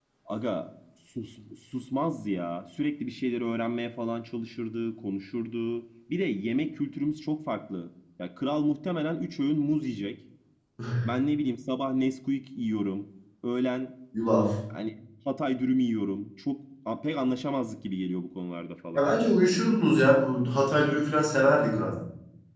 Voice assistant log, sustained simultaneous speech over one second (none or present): none